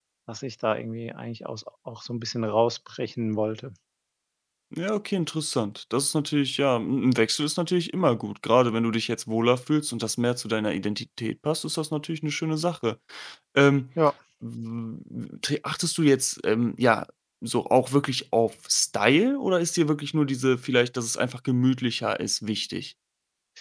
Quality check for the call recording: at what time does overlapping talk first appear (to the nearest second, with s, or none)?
none